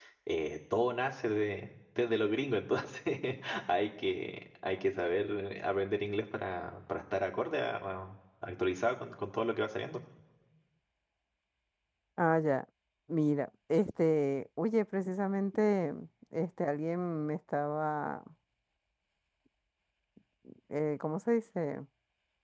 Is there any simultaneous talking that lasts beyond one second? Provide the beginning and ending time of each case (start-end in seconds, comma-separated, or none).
none